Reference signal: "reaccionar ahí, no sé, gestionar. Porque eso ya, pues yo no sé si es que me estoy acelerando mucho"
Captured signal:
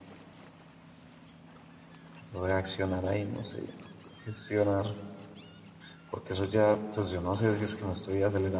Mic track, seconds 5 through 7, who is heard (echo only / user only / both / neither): echo only